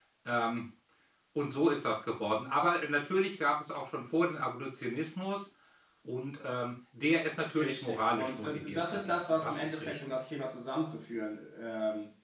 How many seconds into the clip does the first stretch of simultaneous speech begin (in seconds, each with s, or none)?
7.6 s